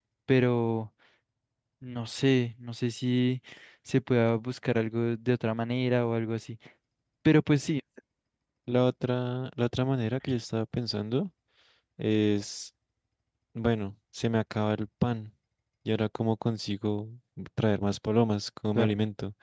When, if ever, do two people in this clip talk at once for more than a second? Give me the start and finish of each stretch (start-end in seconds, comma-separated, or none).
none